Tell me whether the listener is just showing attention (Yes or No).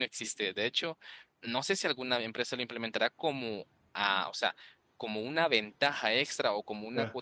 No